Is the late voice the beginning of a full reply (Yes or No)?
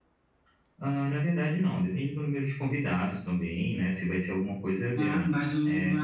Yes